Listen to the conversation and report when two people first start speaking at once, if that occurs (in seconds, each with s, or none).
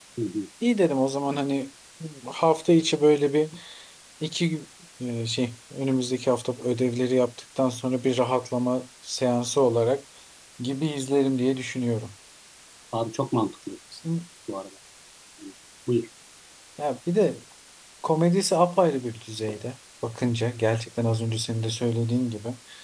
none